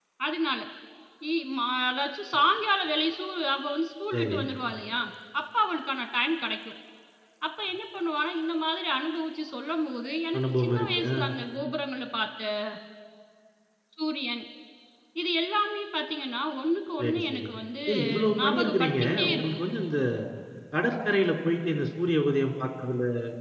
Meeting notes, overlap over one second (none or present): present